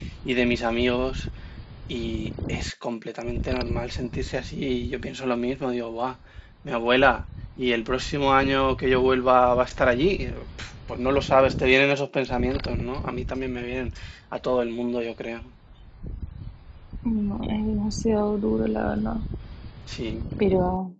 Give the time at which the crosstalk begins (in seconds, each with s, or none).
none